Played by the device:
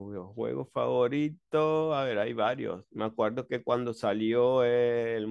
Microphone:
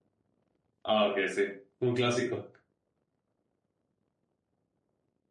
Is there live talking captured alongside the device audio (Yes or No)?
Yes